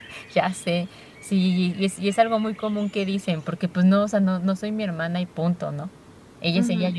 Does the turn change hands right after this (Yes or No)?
Yes